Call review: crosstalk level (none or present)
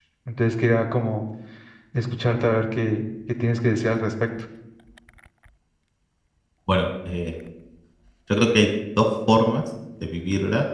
none